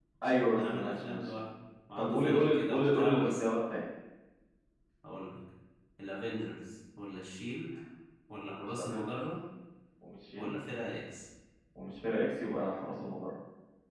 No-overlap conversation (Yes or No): No